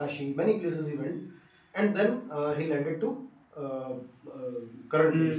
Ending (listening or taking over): taking over